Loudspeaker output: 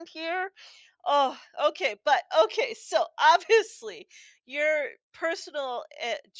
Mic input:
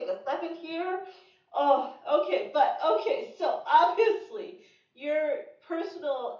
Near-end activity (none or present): none